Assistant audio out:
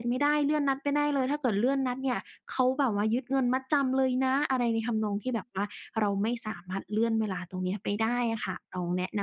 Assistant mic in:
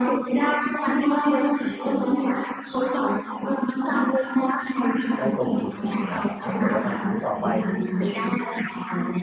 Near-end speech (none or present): present